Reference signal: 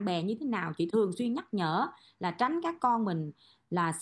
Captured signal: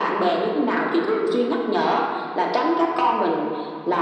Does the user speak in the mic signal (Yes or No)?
No